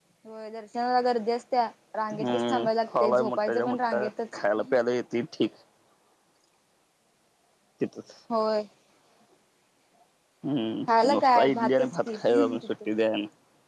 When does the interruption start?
2.2 s

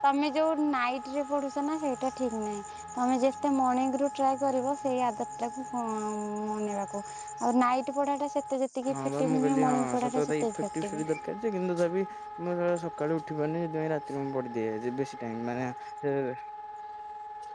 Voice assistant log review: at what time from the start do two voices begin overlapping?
8.9 s

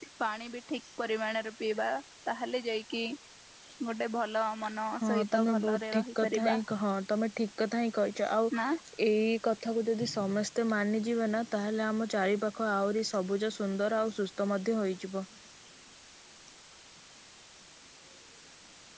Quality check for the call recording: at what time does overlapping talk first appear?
5.0 s

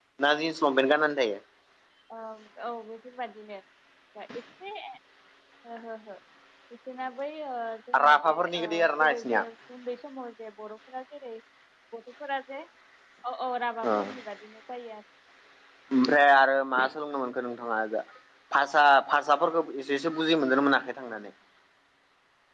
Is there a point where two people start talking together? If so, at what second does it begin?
8.1 s

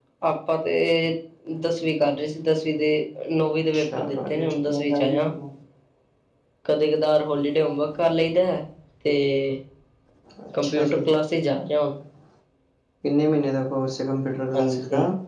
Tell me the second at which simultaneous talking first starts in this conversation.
3.7 s

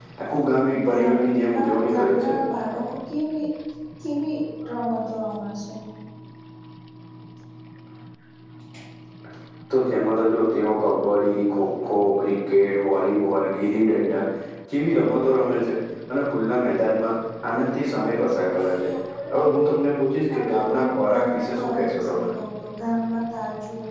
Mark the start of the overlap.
0.9 s

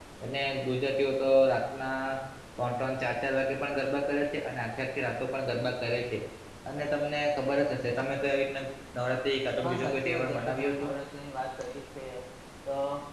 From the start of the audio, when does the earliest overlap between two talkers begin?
9.6 s

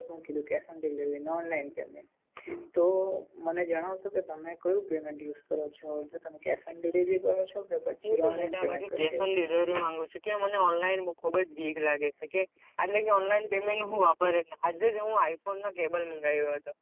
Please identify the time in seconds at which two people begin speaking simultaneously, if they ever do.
8.0 s

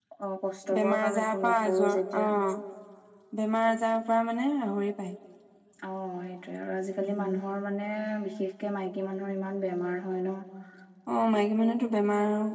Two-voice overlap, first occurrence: 0.8 s

